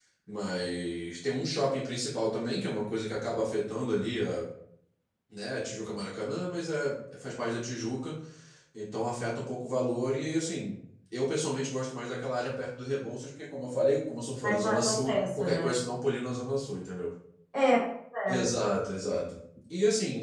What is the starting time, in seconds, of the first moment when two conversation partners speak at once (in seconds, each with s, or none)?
14.4 s